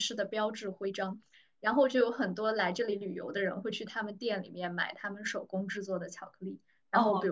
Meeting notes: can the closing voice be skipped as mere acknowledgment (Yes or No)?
Yes